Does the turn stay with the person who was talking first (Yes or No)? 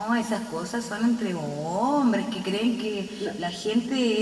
Yes